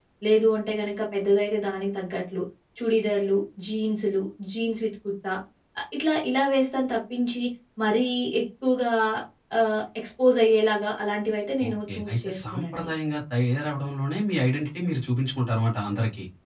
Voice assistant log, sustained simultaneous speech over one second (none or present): present